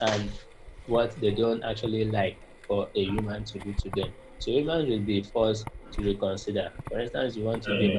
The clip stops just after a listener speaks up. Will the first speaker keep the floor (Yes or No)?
Yes